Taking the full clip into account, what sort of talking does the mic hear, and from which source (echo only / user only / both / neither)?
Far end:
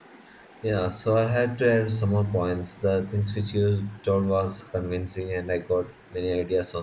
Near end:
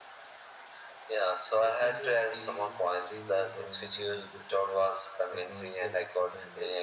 both